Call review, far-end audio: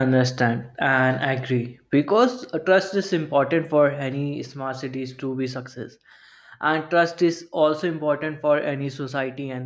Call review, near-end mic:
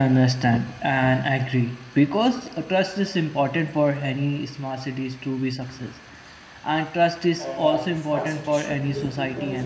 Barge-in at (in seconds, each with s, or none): 7.4 s